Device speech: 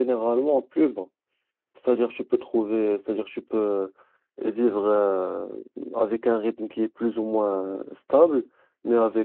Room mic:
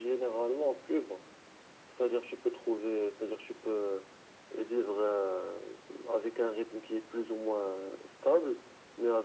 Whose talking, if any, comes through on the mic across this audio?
echo only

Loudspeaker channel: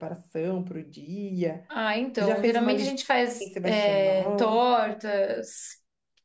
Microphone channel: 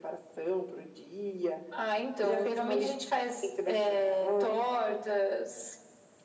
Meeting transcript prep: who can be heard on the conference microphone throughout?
echo only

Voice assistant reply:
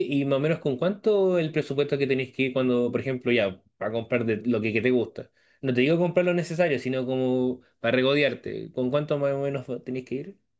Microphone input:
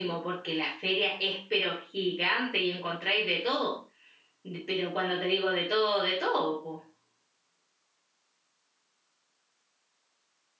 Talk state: user only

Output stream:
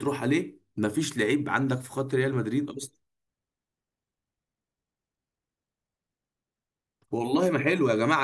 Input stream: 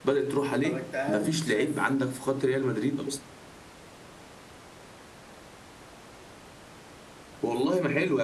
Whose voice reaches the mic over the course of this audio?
both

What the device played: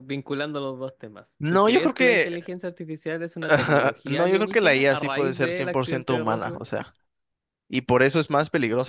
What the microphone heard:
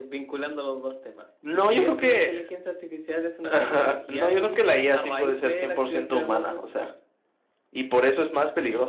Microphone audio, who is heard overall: echo only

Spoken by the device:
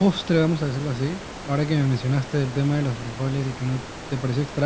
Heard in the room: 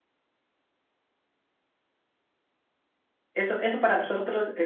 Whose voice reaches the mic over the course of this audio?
user only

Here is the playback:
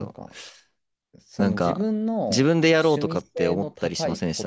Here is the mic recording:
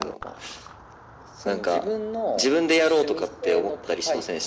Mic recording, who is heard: echo only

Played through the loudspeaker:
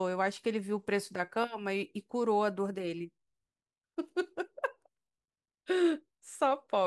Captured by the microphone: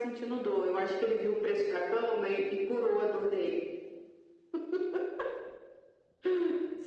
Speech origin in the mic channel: echo only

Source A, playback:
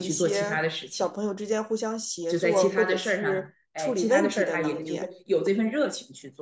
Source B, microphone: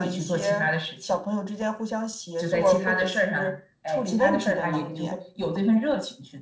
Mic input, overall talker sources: echo only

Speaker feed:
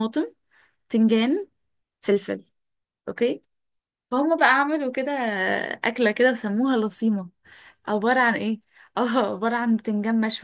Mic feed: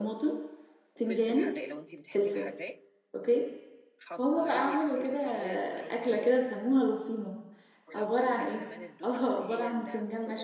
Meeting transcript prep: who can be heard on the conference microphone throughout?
both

